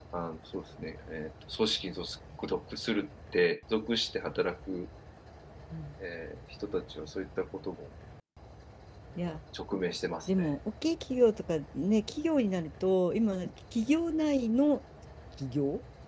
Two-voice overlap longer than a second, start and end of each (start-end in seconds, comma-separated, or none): none